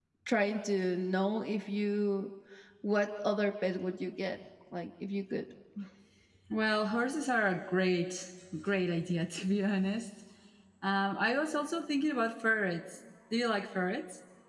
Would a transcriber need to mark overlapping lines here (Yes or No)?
No